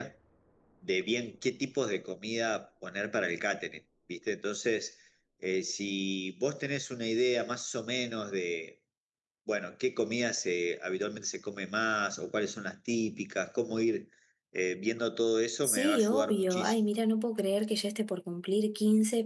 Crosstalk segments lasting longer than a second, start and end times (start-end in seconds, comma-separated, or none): 15.6-16.8